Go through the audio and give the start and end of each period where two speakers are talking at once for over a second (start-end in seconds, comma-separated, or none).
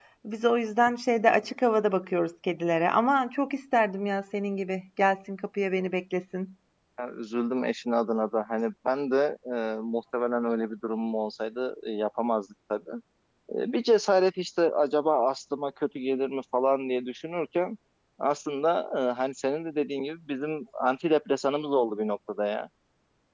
none